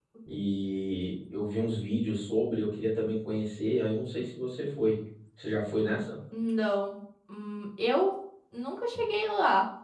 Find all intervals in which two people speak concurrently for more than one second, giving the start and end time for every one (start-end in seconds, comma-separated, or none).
none